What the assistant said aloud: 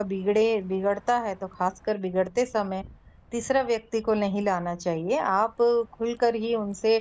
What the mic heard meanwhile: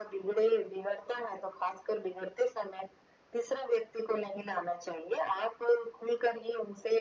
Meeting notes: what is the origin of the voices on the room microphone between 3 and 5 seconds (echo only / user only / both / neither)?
echo only